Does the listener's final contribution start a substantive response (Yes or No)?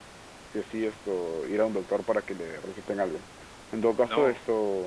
No